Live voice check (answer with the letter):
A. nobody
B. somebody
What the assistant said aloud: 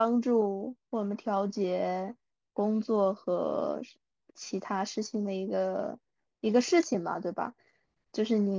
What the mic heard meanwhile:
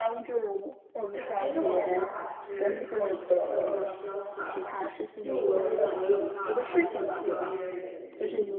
B